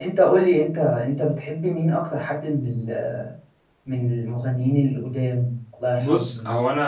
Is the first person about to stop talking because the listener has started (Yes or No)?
Yes